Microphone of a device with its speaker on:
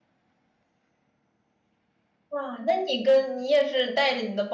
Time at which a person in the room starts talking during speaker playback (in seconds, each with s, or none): 2.3 s